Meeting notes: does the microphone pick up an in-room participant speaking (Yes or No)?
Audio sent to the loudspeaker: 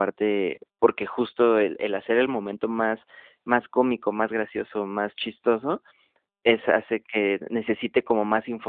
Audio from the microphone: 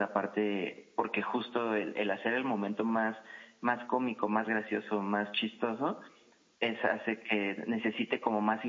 No